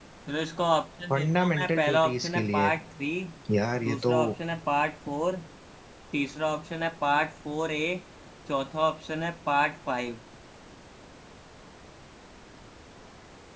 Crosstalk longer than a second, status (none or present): present